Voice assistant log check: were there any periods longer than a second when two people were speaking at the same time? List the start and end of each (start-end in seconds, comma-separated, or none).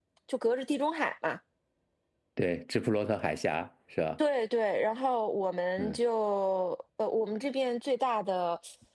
none